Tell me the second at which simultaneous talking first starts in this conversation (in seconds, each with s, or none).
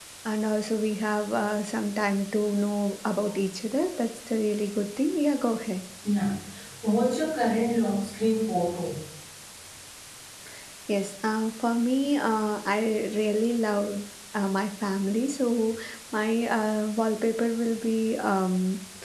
none